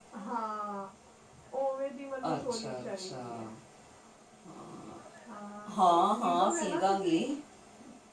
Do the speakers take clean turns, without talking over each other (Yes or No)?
No